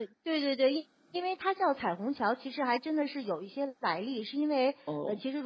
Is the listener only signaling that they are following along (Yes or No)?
Yes